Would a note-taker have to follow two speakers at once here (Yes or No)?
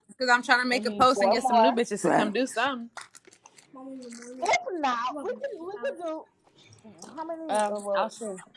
Yes